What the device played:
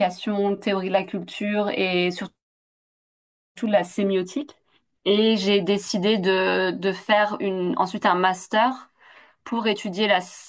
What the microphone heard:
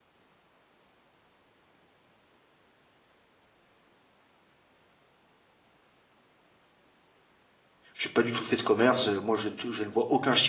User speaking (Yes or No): Yes